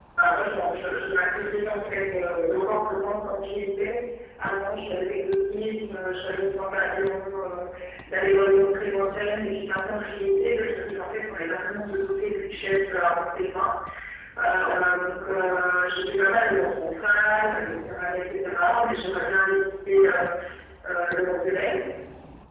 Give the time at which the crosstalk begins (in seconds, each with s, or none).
none